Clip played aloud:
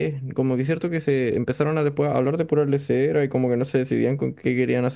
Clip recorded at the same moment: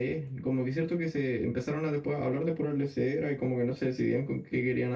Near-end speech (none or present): none